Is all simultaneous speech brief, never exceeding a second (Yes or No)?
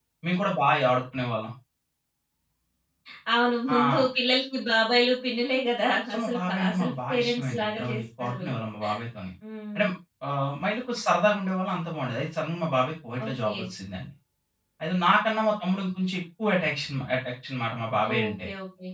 No